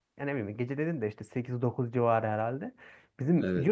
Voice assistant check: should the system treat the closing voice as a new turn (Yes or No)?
No